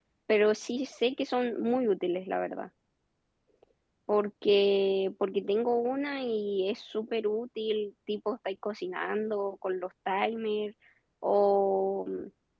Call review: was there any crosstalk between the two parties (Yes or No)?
No